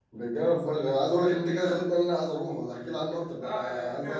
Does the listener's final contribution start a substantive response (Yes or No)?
Yes